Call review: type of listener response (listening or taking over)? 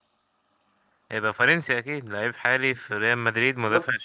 listening